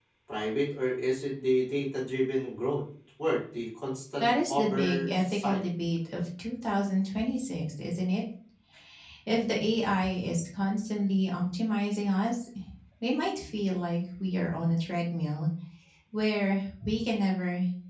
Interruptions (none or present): present